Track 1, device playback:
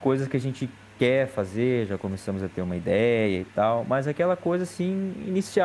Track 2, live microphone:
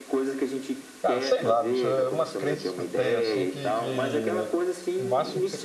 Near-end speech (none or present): present